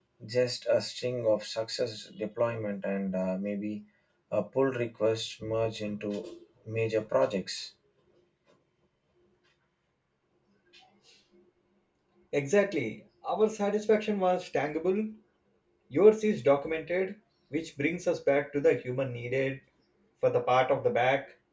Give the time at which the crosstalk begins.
none

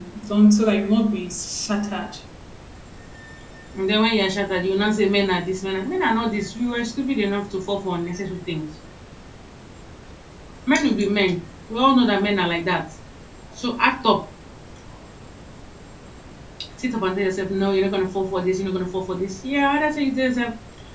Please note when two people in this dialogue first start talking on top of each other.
none

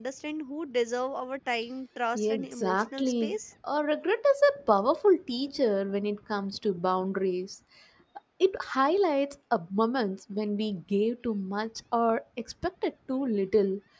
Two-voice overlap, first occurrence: 2.2 s

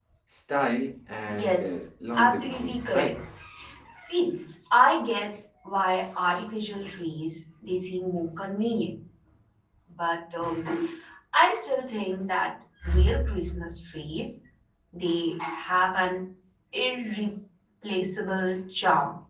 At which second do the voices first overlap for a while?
1.3 s

